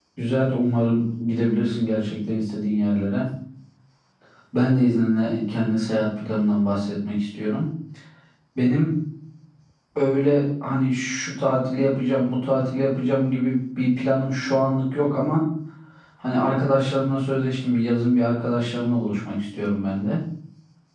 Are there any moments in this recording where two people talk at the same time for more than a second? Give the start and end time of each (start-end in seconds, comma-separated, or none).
none